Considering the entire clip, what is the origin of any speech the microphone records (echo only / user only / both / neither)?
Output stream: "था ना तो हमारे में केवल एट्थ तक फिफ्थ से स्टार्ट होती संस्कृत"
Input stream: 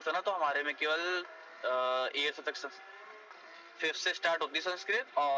echo only